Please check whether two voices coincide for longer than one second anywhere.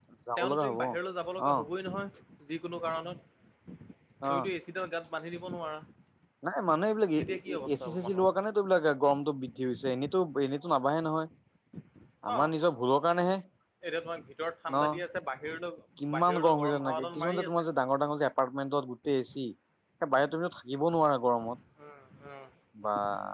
Yes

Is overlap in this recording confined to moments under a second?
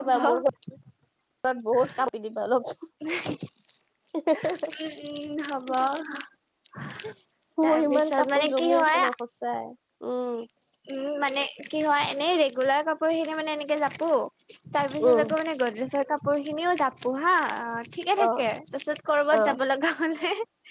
No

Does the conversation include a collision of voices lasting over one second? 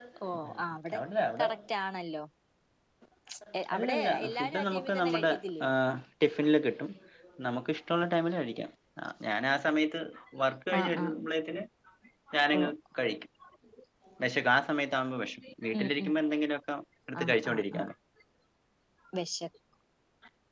Yes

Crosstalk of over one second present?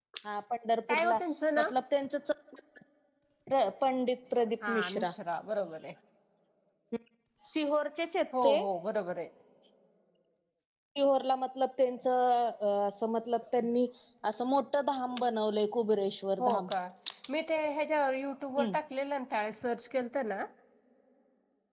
No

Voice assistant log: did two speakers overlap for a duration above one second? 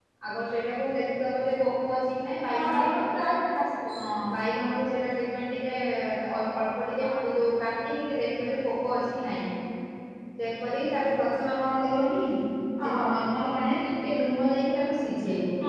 No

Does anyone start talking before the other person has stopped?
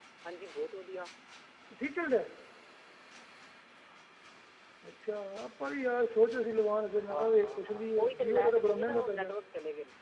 Yes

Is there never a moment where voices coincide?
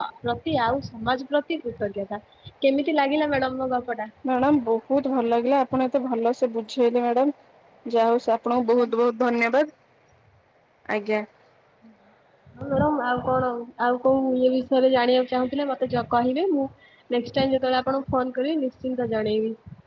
Yes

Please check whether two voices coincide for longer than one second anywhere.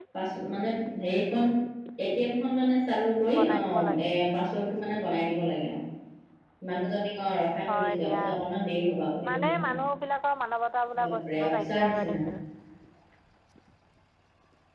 Yes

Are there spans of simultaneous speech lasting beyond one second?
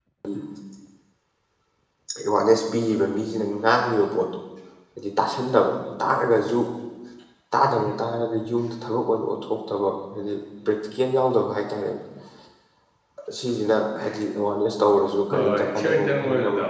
Yes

